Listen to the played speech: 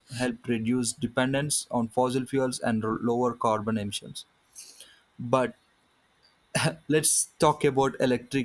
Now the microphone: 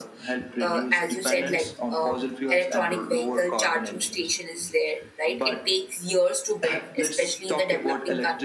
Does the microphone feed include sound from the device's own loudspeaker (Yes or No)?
Yes